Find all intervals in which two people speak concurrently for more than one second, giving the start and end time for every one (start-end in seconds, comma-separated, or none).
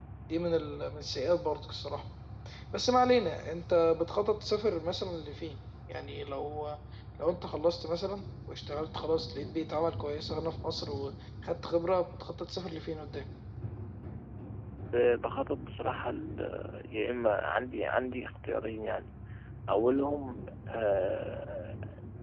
none